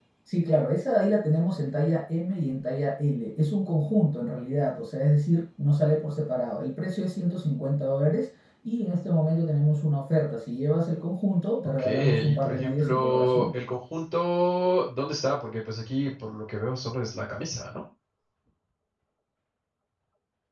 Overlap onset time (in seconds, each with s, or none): 11.8 s